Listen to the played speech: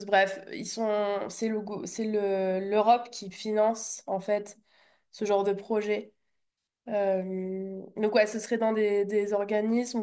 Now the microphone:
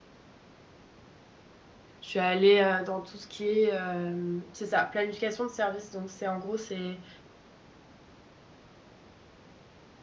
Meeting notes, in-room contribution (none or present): present